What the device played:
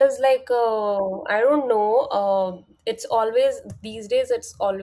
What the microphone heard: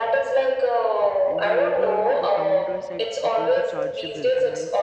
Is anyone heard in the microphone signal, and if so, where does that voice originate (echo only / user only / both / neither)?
both